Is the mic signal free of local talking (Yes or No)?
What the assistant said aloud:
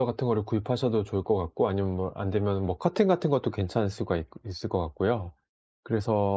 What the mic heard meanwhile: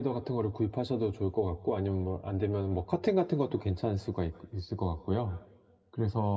Yes